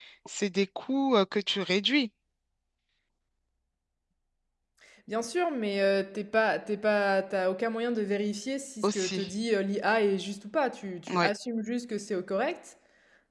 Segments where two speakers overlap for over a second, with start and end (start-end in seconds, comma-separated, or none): none